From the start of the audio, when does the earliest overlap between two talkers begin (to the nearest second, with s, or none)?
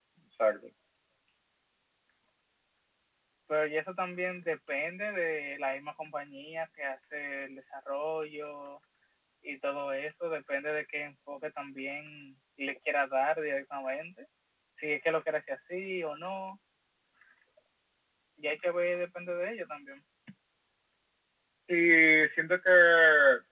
none